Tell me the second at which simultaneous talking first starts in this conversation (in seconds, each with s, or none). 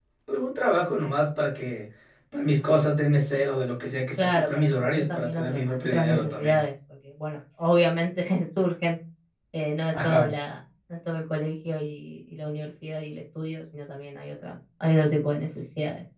4.2 s